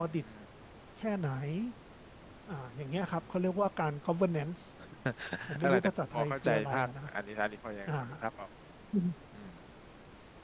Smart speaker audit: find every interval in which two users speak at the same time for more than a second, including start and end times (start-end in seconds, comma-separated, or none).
5.6-6.9